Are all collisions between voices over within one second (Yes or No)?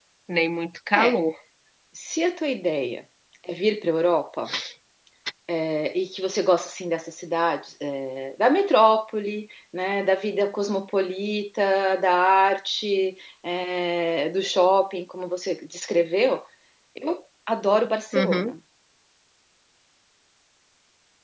Yes